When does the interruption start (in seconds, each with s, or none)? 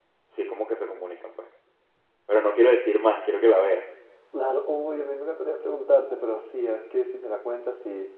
none